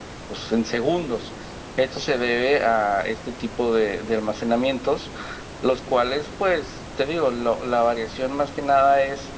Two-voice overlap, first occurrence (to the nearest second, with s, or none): none